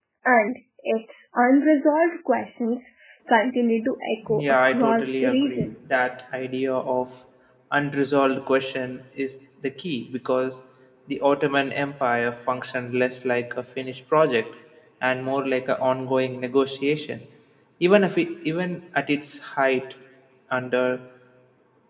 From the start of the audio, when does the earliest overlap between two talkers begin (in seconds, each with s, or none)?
4.2 s